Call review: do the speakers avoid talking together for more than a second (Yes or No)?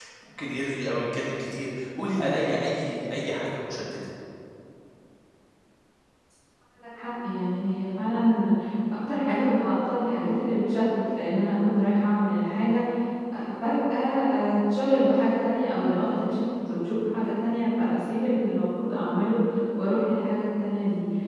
Yes